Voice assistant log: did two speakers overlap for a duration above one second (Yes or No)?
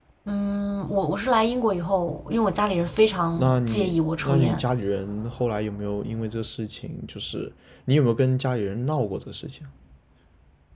Yes